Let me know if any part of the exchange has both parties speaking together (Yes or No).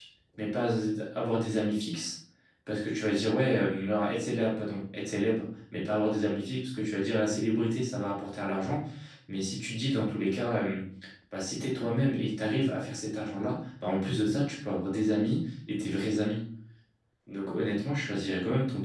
No